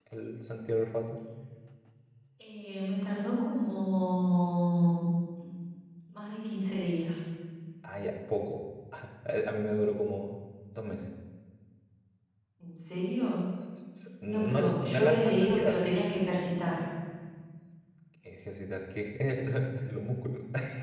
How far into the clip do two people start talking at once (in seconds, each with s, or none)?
14.3 s